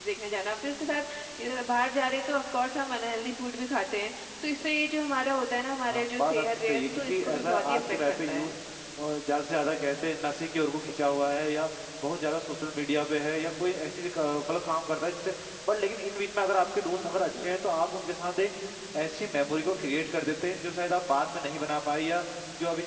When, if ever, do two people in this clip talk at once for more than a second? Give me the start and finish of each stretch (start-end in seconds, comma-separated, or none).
5.9-8.5